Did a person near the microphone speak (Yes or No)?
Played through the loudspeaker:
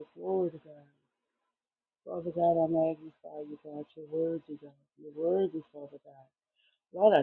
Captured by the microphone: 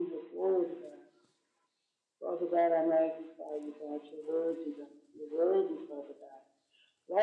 No